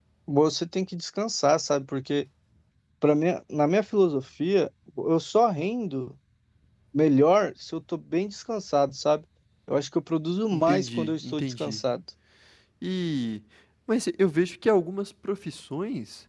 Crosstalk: present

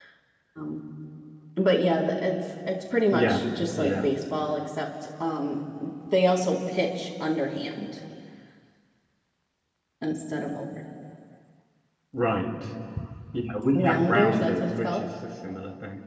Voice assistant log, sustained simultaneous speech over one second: present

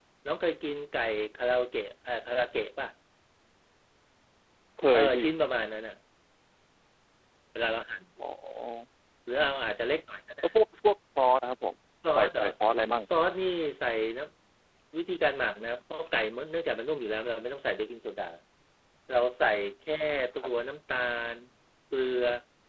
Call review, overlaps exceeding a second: none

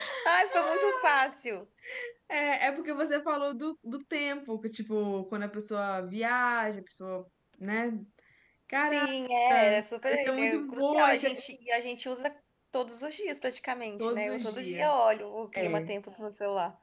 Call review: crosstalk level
present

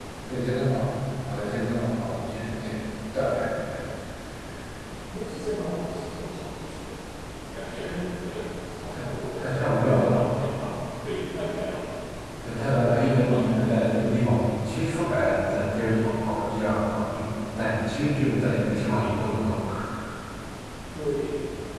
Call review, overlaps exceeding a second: present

